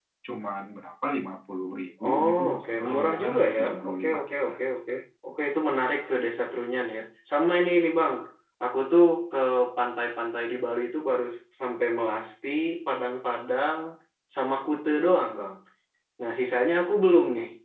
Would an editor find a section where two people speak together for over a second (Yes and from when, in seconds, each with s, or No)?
Yes, from 2.0 s